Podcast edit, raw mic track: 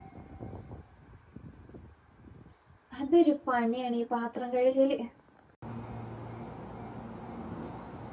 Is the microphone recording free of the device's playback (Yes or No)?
Yes